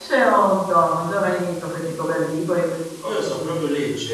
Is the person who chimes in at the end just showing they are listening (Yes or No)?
No